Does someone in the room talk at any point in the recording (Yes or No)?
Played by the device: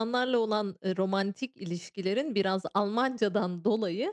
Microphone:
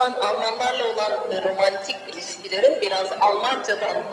No